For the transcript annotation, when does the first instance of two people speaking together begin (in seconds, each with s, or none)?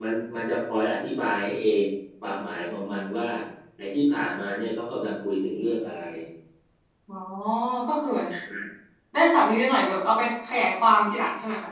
none